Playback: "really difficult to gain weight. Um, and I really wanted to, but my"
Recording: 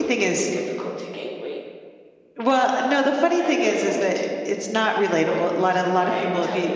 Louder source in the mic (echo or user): user